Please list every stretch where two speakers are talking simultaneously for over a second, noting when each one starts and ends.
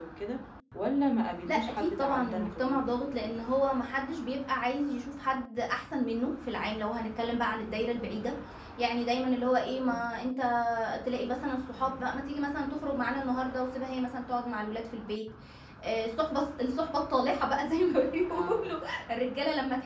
1.4-2.8

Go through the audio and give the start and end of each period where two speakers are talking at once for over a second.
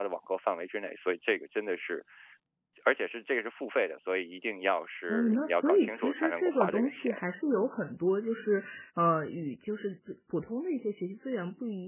5.1-7.1

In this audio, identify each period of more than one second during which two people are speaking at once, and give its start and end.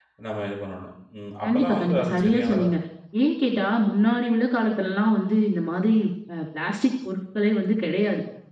1.5-2.7

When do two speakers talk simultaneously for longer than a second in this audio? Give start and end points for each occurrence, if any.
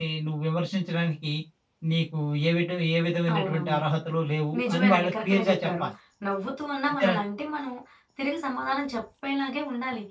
4.6-5.8

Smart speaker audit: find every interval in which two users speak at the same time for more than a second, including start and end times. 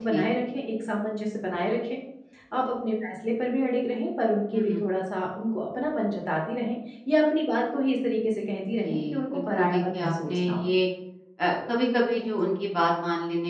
8.8-10.7

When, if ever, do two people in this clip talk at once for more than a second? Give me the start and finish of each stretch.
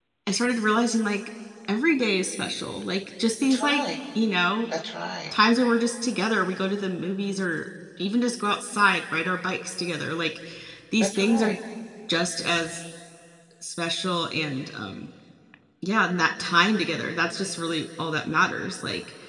none

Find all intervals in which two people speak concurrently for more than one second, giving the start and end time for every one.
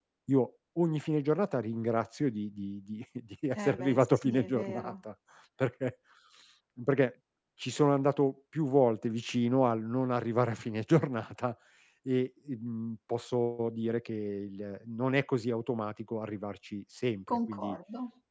3.5-4.9

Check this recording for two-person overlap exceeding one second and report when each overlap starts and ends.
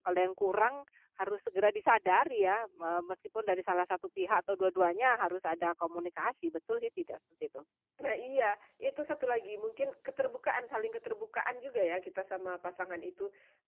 none

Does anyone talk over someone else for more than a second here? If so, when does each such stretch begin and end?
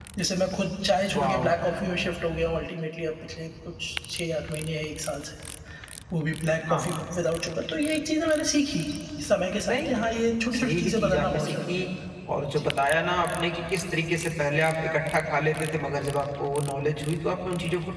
10.5-11.9

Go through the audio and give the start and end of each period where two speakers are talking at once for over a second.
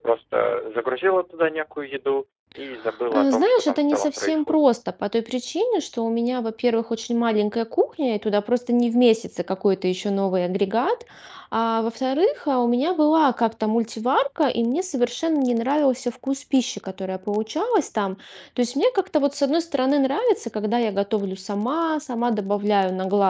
3.1-4.7

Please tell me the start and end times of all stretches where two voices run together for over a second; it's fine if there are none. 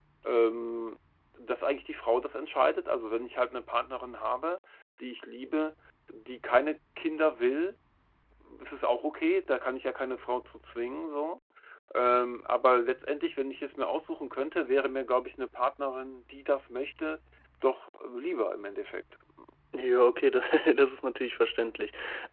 none

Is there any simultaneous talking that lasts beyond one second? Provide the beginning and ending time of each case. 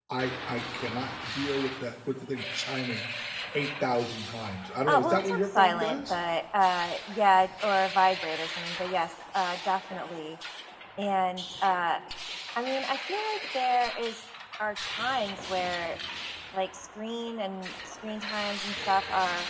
4.9-6.2

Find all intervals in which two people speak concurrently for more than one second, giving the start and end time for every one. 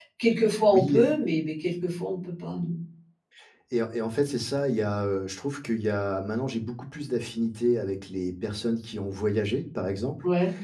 none

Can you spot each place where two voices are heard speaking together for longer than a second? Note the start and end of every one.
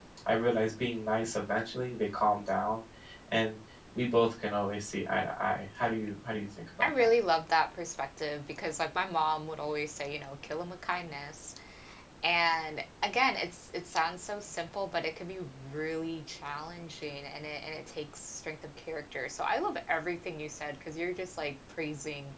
none

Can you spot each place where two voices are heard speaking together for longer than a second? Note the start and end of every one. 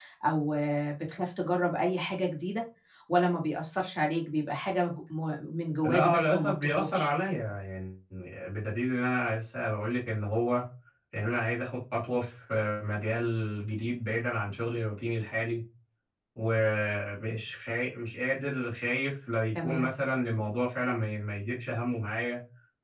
5.8-7.1

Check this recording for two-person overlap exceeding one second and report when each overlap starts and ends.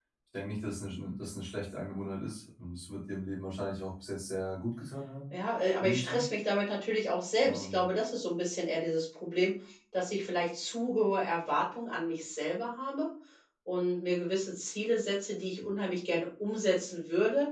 none

